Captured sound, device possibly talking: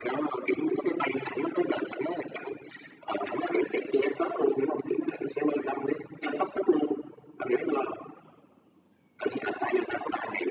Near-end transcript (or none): none